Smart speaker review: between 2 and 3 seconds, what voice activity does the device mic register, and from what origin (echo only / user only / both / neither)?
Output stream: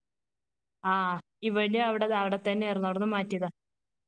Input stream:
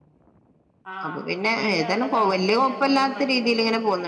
both